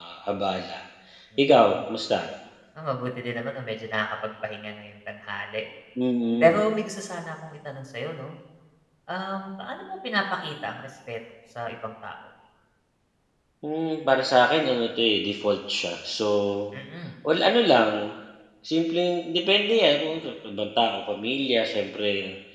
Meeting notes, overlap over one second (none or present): none